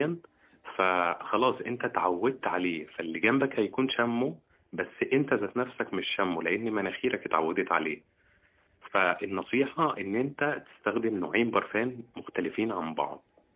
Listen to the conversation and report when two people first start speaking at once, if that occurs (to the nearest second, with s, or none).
none